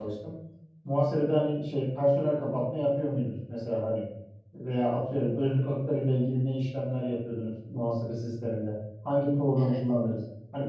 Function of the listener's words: listening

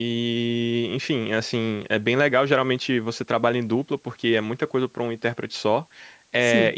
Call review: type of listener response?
listening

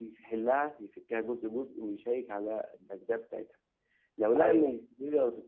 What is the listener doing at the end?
listening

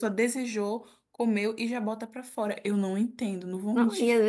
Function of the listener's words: taking over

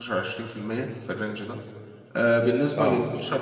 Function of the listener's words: listening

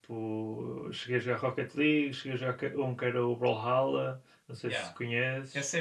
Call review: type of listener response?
taking over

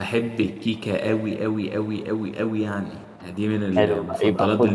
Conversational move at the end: taking over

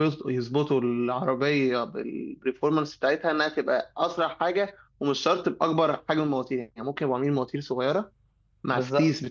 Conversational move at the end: listening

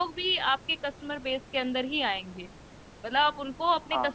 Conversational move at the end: listening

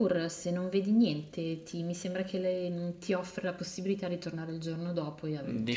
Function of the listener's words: taking over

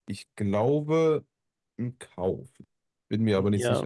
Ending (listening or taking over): taking over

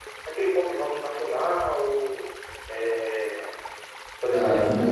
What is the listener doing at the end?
taking over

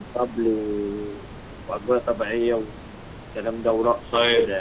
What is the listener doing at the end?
taking over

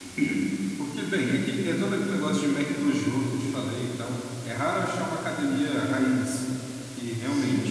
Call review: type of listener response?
listening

